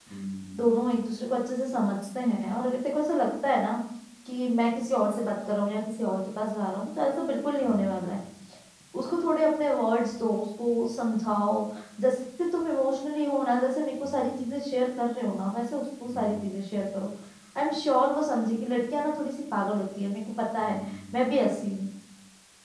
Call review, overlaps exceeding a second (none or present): none